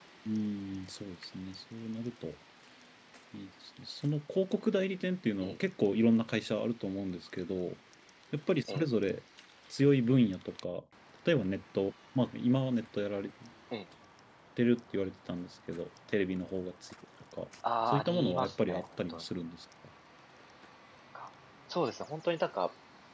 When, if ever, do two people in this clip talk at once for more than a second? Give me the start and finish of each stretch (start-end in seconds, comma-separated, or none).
17.9-19.2